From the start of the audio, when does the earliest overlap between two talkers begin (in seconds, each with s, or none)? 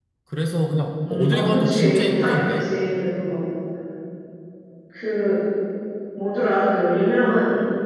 1.1 s